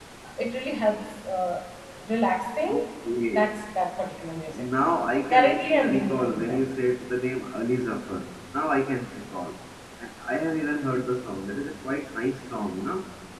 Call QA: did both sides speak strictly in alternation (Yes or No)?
No